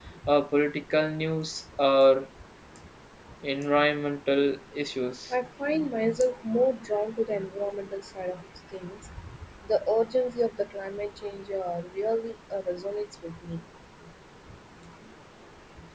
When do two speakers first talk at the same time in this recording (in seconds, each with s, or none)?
none